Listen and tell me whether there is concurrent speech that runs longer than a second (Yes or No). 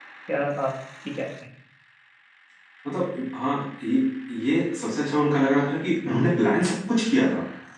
No